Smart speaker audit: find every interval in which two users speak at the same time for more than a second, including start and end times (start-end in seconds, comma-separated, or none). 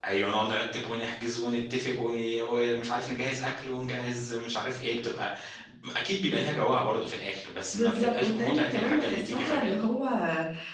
7.7-9.8